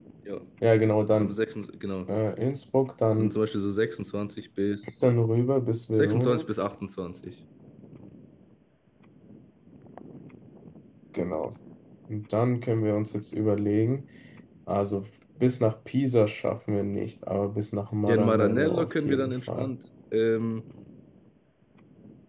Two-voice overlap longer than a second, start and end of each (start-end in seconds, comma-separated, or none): 18.1-19.7